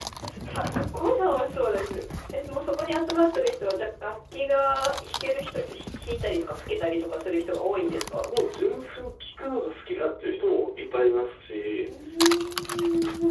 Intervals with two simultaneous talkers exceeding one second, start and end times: none

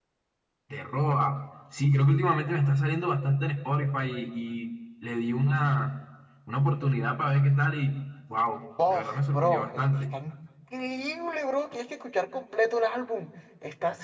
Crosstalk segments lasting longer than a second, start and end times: 8.9-10.1

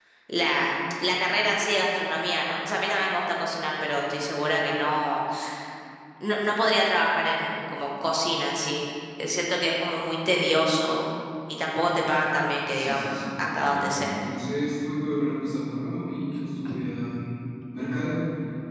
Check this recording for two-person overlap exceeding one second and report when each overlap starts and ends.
12.7-14.1

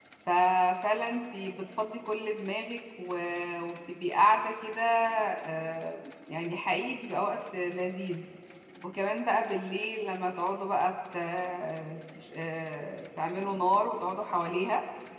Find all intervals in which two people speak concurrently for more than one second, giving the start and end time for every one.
none

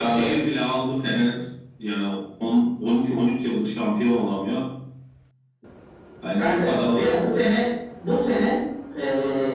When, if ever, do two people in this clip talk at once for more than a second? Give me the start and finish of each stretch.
6.4-7.6

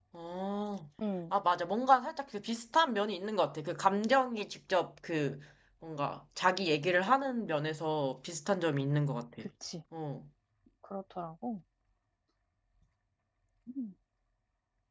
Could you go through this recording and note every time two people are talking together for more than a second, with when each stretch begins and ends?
none

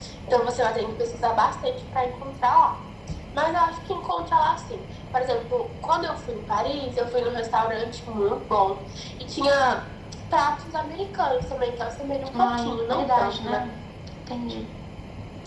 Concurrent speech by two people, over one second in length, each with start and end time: 12.3-13.6

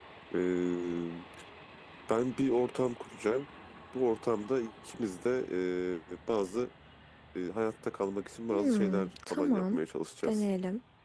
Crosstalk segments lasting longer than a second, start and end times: 8.5-9.8

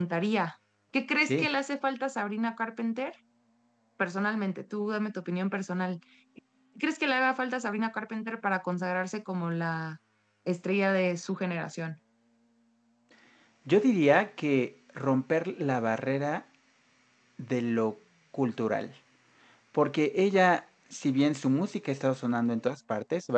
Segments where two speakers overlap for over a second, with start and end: none

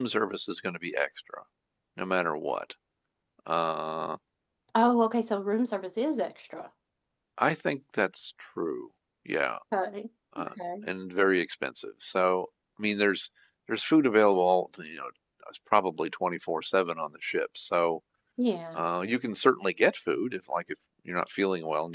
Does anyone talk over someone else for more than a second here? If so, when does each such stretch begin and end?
none

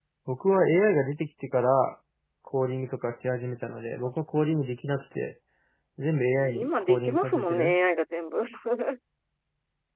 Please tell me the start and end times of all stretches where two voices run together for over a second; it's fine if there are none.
6.3-7.7

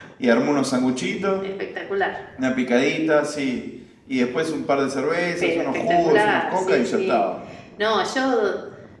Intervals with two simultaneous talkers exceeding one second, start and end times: 5.4-7.3

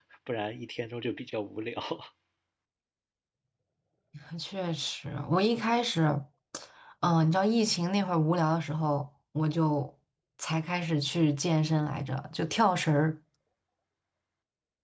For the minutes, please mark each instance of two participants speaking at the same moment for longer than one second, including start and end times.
none

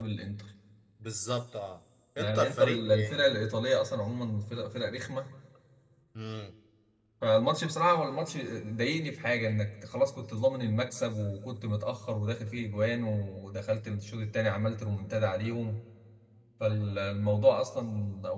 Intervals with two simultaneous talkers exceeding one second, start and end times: 2.2-3.5

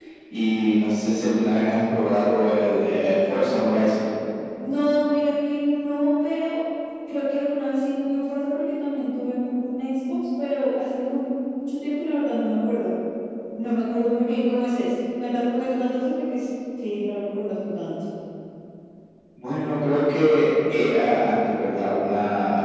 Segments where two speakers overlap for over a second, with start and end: none

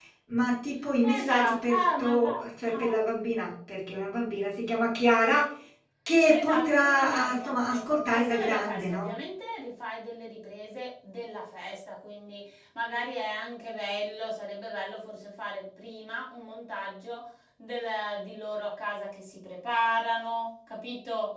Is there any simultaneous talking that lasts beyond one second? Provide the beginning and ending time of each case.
1.2-2.9, 6.3-9.2

